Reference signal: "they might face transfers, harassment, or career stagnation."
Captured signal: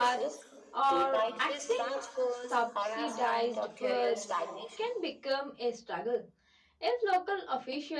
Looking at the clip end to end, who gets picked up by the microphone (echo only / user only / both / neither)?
both